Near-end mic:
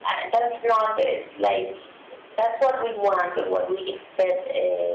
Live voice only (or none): none